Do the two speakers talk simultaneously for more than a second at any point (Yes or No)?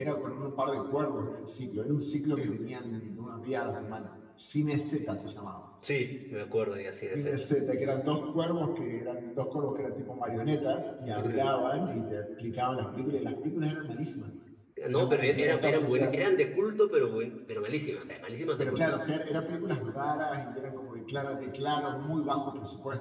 Yes